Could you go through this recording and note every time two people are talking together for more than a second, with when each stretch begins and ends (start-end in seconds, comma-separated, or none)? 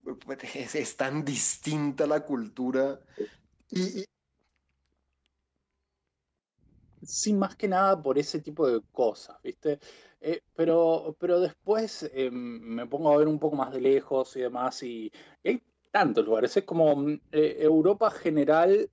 none